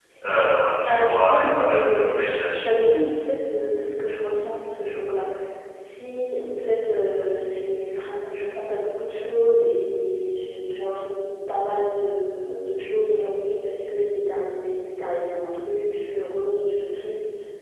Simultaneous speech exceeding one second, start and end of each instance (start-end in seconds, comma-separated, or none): 0.9-2.1